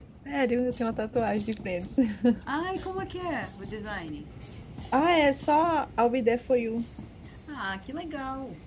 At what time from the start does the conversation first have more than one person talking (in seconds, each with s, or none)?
none